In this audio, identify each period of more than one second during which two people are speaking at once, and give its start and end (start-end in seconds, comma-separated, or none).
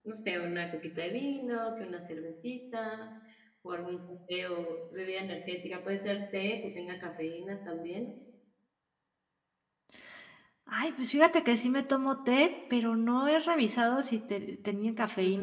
none